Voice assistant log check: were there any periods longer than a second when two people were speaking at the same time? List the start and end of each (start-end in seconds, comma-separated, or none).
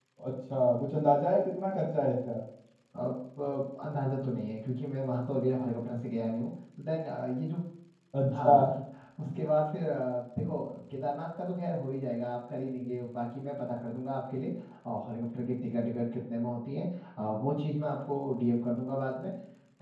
none